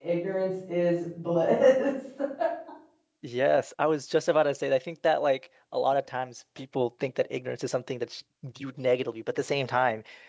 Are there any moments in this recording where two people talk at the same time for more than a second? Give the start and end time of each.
none

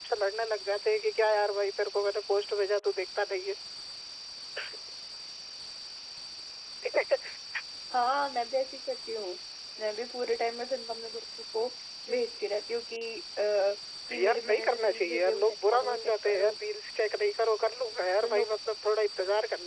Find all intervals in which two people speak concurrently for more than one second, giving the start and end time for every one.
14.2-16.5

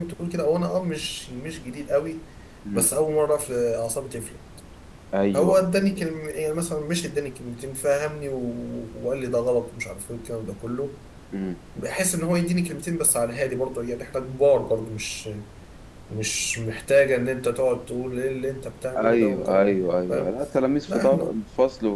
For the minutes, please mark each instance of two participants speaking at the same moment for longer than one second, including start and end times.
19.0-20.3

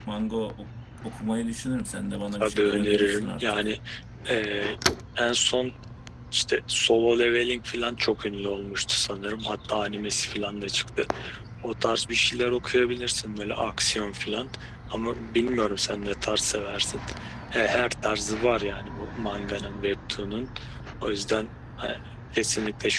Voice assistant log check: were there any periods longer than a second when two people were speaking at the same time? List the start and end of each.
2.4-3.7

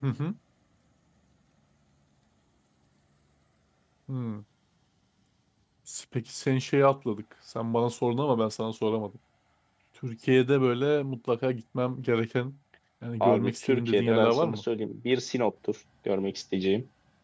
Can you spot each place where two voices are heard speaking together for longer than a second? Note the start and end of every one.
13.2-14.6

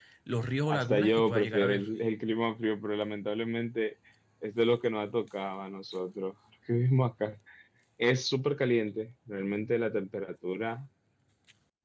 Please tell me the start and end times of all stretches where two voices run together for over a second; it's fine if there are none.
0.7-1.9

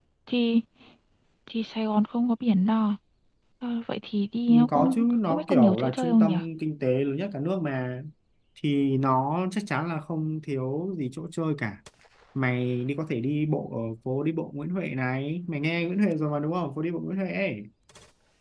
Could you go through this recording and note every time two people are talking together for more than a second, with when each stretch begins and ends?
4.5-6.3

